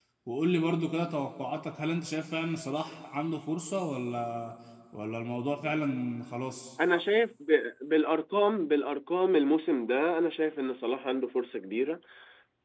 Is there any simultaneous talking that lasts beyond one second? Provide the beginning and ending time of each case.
none

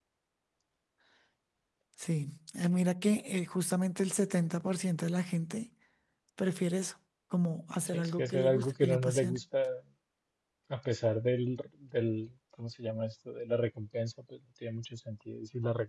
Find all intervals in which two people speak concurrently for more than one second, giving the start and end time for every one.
7.9-9.4

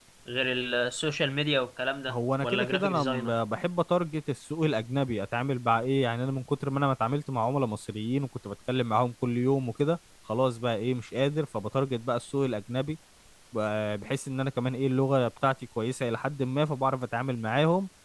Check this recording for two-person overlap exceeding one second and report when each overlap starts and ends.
2.1-3.3

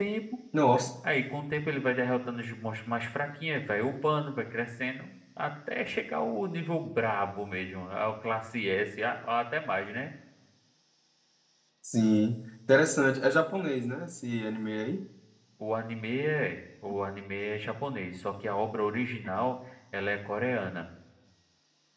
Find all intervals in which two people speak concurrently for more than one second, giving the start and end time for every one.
none

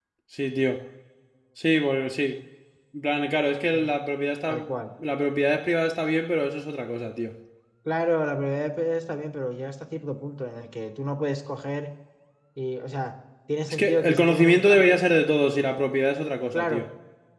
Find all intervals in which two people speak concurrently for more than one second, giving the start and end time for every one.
13.7-15.0

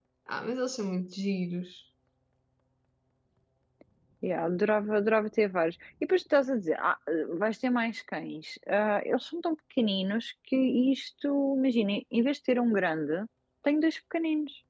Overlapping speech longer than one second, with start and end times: none

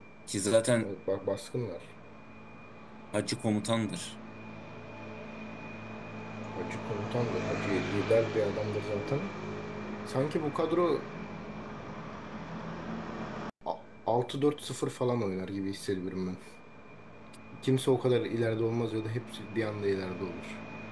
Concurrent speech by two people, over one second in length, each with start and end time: none

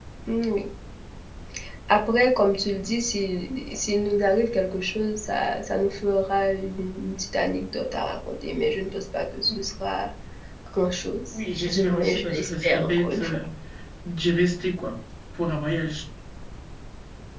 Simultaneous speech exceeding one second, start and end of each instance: 11.7-13.4

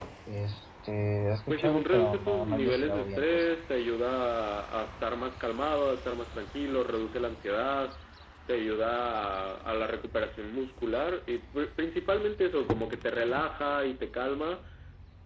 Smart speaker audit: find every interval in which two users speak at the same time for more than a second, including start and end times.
1.5-3.5

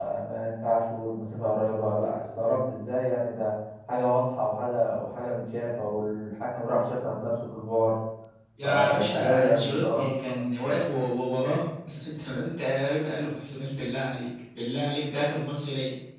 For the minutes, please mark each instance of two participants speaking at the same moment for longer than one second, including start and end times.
8.6-10.7

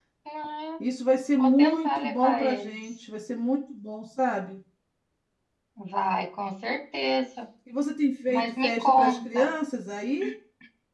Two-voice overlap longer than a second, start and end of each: 1.4-2.8, 8.3-9.5

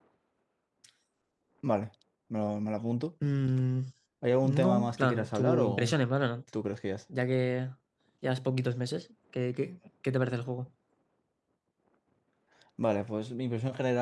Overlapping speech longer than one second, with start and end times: 4.4-6.0

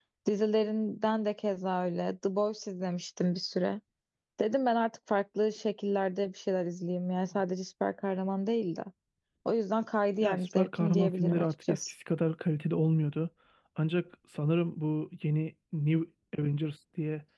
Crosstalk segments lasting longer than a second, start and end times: 10.2-11.8

